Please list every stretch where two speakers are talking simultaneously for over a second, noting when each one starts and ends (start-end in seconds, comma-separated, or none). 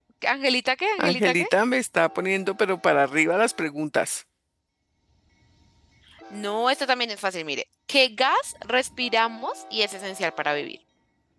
none